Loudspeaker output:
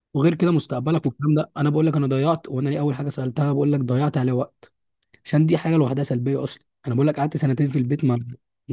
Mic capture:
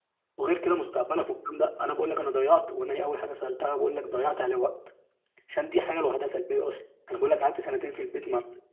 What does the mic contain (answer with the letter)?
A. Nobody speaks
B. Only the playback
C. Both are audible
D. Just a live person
B